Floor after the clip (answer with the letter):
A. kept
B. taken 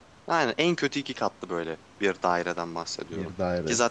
A